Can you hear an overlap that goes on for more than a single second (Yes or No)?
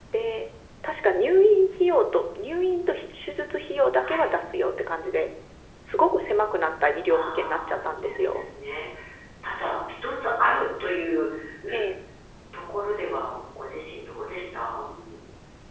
Yes